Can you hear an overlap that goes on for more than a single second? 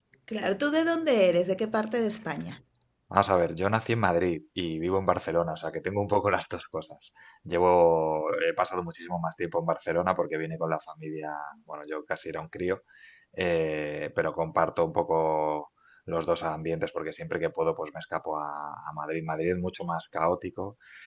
No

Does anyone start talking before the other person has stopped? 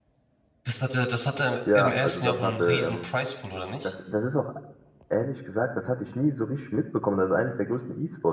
Yes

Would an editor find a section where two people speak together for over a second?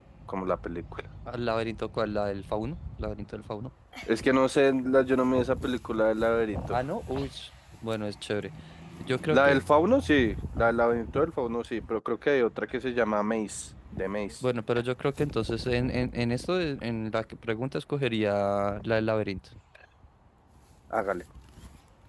No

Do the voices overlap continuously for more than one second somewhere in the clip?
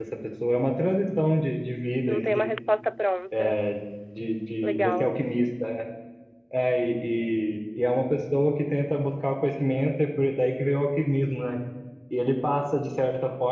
No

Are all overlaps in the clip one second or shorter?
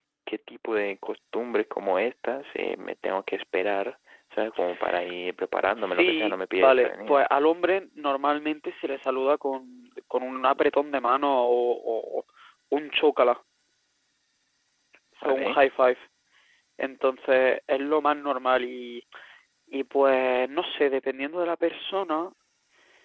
No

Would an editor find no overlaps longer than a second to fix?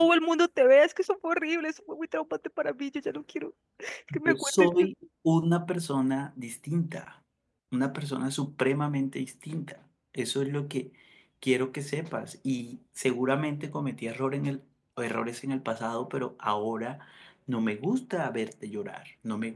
Yes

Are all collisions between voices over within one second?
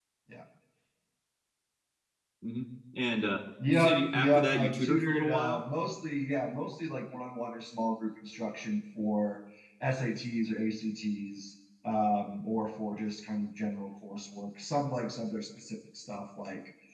No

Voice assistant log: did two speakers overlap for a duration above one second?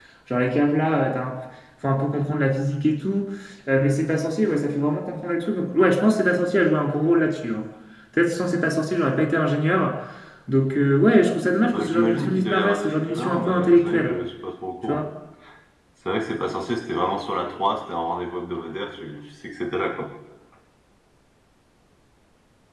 Yes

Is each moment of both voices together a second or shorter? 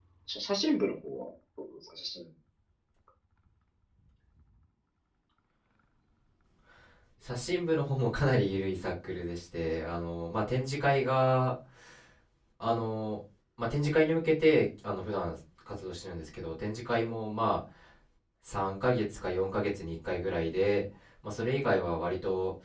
Yes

